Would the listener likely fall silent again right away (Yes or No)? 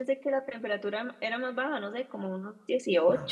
No